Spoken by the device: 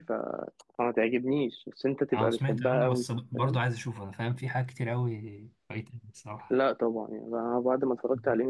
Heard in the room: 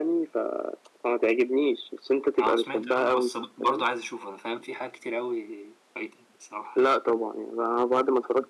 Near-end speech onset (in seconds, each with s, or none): none